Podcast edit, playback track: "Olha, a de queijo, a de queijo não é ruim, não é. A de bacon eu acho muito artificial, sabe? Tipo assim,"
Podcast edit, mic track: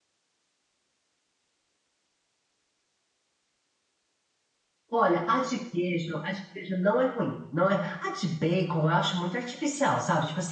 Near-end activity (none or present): none